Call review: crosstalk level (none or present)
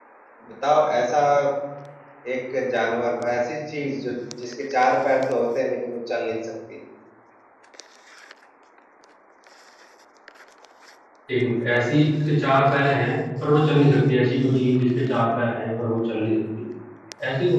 none